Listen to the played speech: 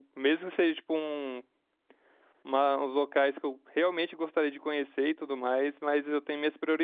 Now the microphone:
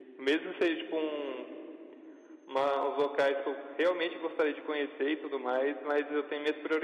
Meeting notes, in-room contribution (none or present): none